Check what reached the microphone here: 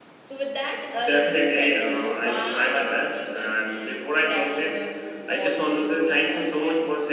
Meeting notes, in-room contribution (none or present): none